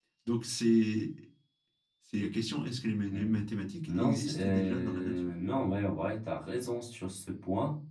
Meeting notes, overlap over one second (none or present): present